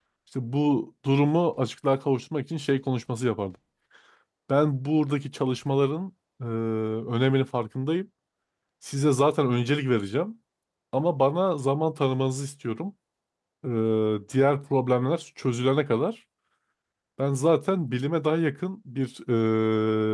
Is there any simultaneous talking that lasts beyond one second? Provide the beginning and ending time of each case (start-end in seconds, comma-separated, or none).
none